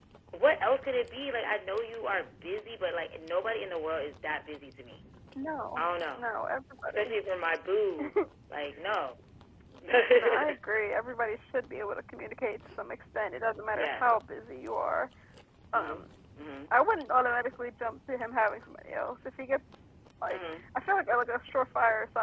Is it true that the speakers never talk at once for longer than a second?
Yes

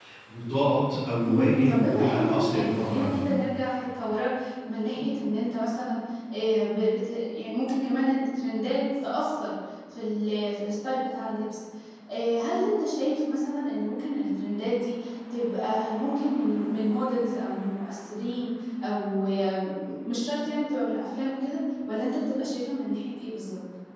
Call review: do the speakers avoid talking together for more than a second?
No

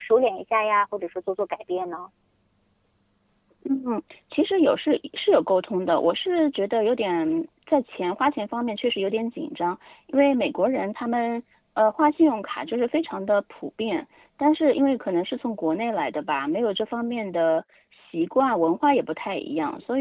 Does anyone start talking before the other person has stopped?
No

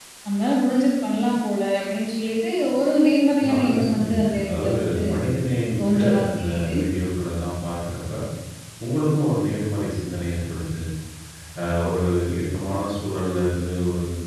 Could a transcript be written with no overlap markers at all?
No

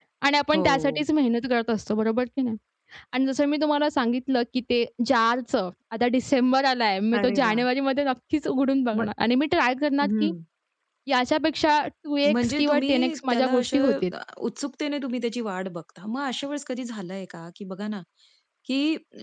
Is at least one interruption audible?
Yes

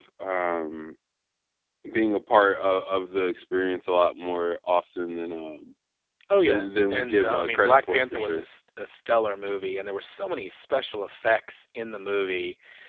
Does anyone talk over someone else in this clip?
Yes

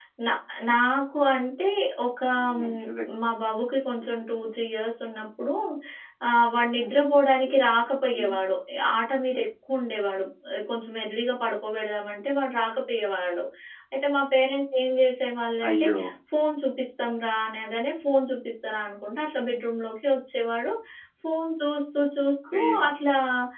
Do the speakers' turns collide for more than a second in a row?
No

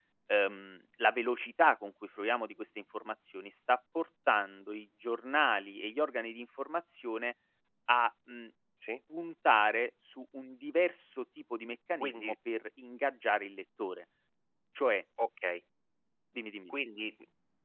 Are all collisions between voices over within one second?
Yes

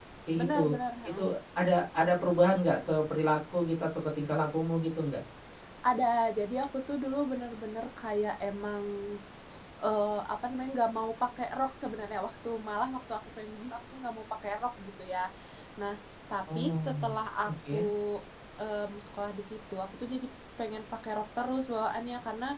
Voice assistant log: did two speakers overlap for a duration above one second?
Yes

